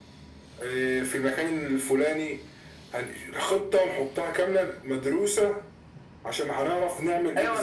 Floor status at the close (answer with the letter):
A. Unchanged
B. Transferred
B